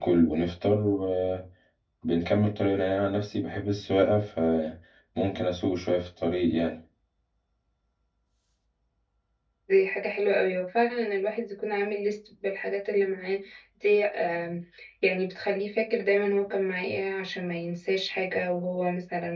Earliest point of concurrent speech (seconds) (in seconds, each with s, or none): none